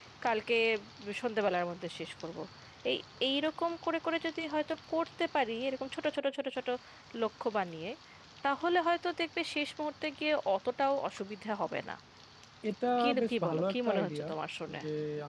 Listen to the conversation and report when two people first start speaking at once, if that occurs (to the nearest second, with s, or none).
13 s